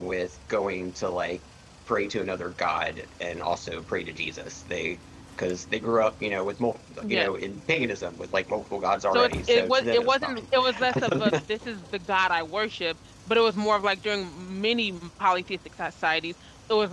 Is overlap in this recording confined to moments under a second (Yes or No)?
No